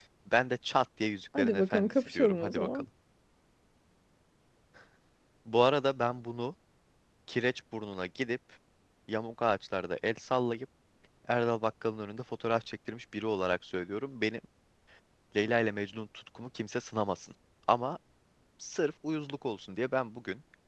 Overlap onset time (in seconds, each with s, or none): 1.4 s